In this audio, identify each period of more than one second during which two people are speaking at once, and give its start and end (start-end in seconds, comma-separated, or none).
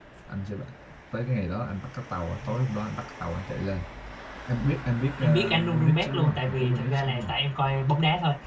5.2-7.3